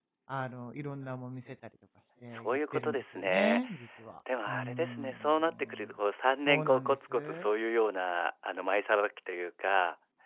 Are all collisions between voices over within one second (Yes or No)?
No